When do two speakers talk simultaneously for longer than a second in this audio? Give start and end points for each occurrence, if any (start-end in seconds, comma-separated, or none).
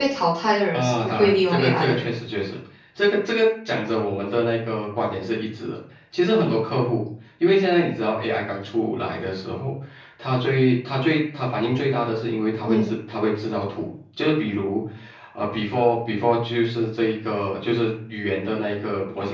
0.7-2.1